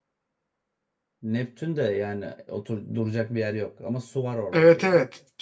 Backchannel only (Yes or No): No